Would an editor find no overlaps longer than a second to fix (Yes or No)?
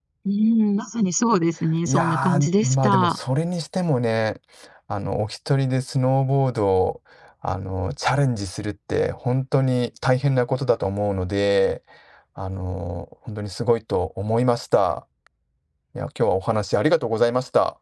No